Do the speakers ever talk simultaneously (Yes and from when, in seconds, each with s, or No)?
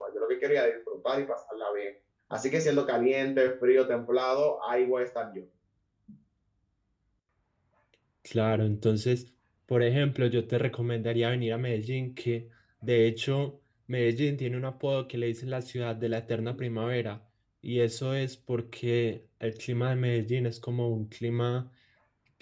No